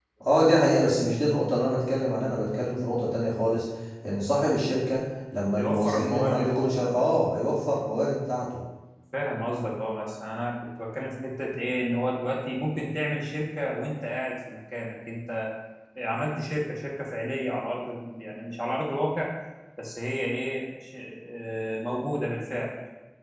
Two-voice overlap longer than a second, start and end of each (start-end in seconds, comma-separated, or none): 5.6-7.1